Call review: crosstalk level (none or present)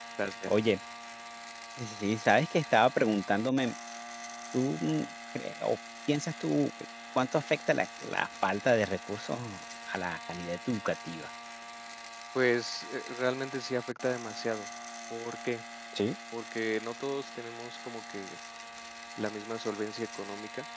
none